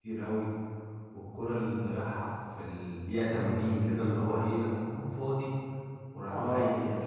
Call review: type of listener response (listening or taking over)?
listening